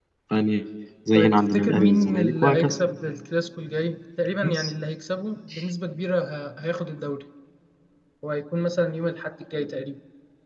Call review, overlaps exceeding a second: present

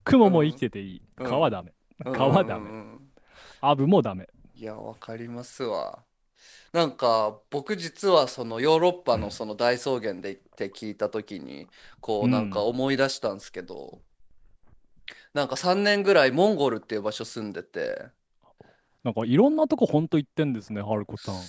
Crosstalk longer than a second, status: none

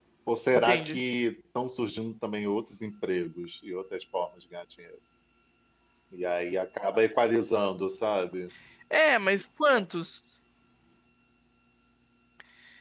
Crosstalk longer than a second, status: none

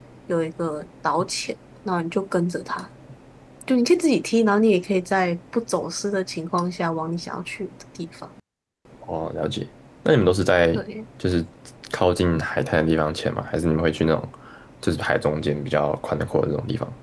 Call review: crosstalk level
none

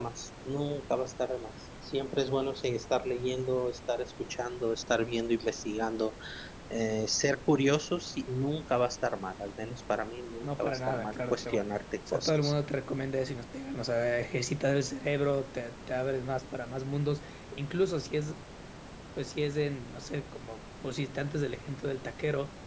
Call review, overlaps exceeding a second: present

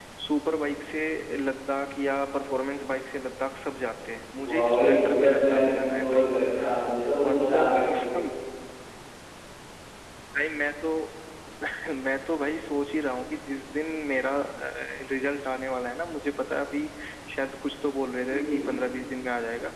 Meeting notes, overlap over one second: present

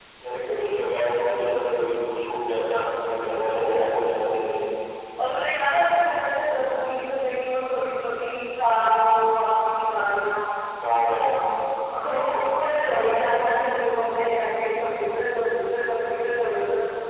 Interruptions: none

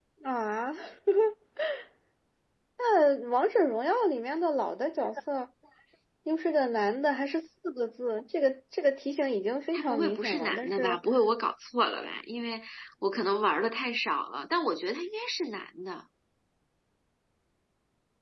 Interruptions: present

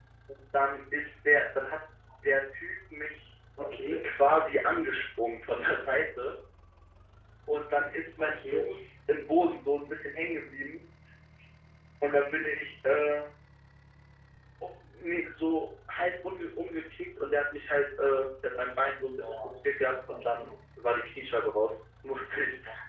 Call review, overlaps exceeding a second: none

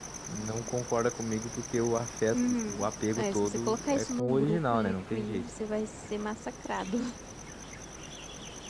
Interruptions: present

